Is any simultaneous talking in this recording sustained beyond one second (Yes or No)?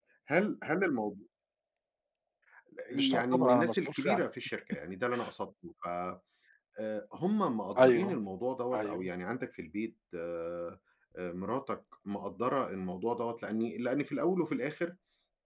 Yes